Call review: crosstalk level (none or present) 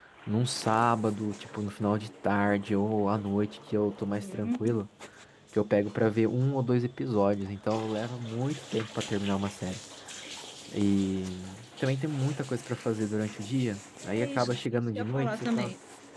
present